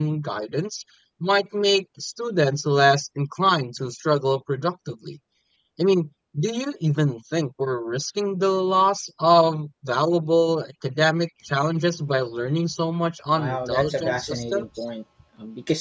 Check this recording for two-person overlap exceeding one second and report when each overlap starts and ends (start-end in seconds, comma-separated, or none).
13.4-14.6